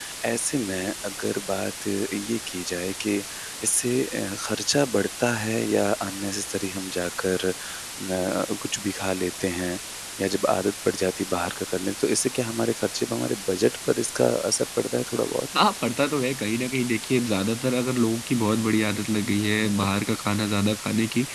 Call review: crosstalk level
none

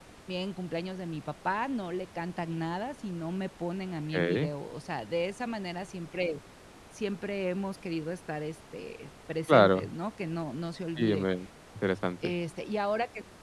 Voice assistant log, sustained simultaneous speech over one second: none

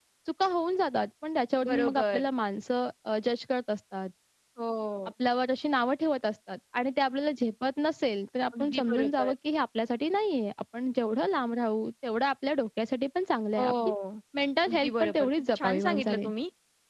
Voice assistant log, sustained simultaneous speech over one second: present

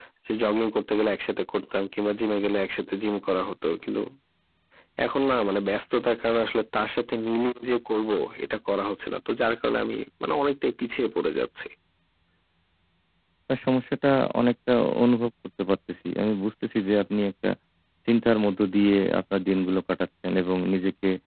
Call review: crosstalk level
none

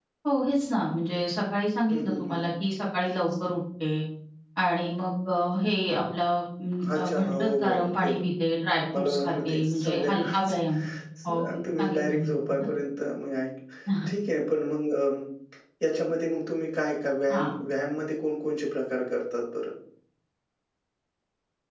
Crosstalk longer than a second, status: present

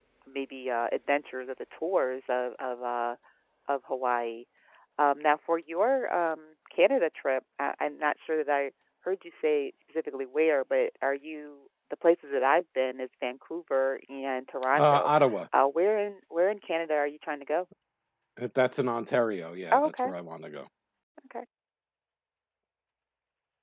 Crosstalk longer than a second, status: none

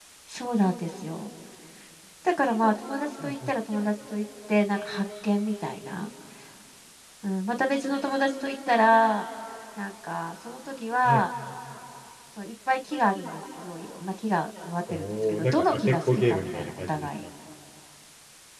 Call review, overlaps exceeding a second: present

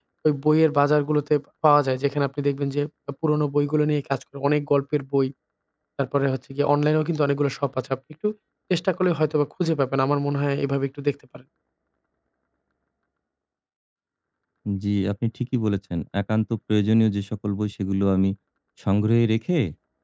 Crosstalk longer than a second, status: none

